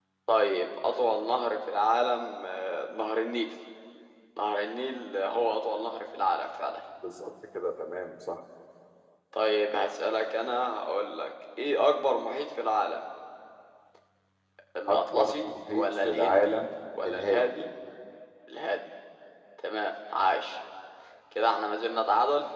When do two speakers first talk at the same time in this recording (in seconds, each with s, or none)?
14.9 s